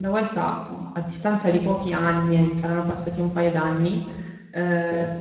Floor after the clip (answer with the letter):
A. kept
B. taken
A